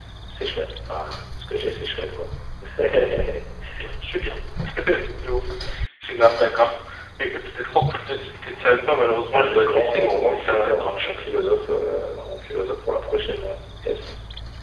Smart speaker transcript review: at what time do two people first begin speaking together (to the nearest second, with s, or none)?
9 s